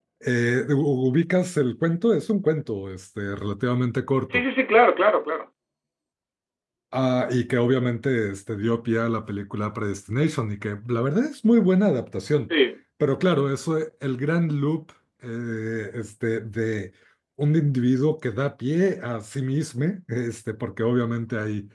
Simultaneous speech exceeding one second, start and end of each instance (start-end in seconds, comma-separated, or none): none